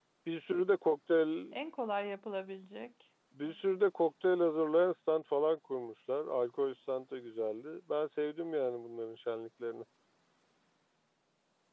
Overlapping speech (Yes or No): No